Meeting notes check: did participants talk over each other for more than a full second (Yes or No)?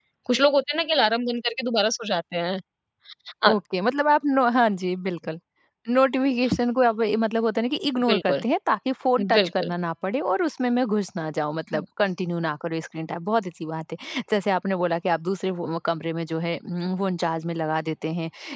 No